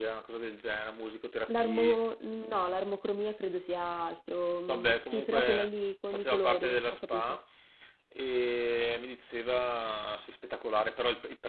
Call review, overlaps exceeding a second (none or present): present